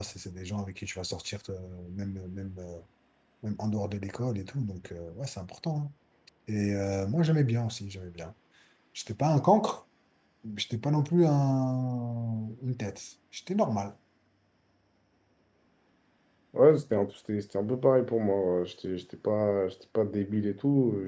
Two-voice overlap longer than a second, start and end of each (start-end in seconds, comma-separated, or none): none